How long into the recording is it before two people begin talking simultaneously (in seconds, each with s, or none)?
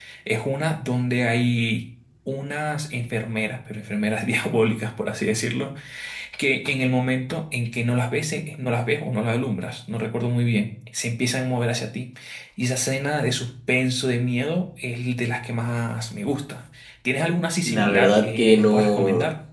17.6 s